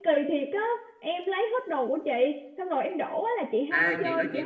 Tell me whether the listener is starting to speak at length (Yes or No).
Yes